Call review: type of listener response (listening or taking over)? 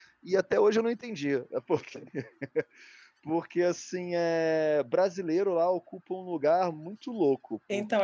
taking over